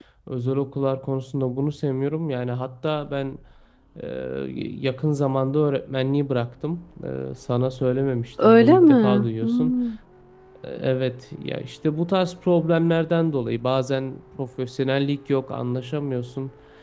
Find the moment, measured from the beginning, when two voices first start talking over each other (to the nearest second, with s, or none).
8 s